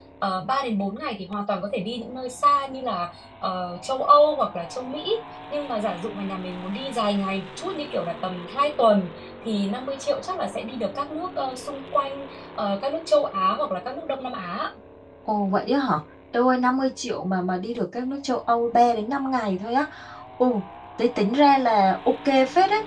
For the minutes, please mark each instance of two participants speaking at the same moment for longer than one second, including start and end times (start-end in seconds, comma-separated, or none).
none